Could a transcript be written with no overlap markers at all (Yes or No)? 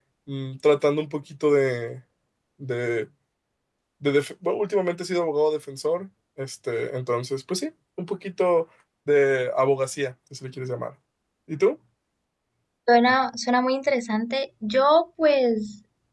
Yes